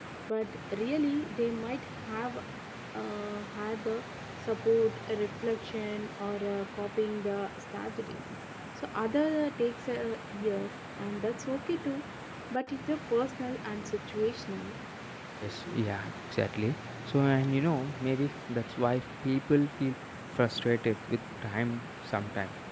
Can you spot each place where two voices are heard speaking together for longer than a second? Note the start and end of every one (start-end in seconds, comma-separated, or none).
none